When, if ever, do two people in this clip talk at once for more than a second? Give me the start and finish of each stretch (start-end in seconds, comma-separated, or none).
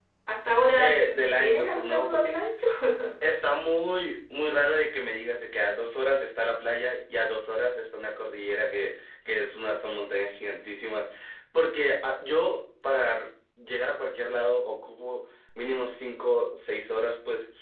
0.8-2.3